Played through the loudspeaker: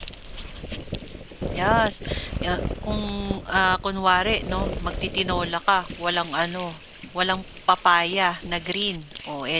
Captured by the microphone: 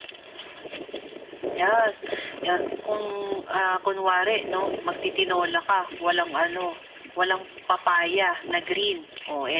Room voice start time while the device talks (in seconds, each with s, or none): none